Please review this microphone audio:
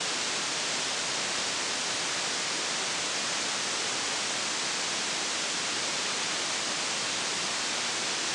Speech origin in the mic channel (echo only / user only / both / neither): neither